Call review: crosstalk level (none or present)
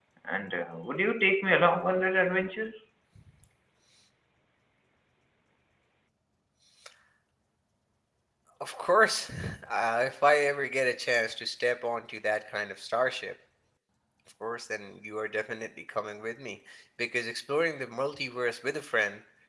none